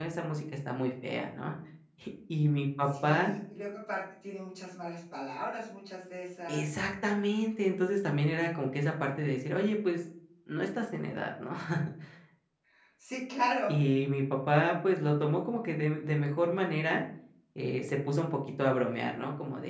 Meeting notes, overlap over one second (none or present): none